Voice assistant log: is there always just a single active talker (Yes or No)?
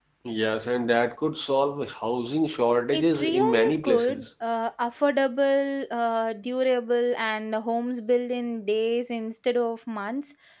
No